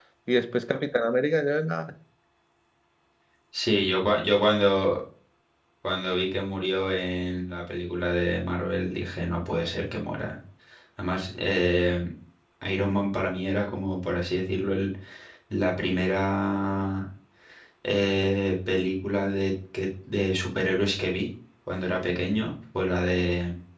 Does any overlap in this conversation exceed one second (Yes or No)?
No